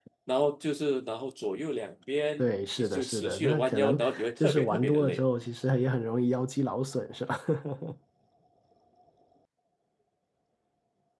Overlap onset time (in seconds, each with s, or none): 2.4 s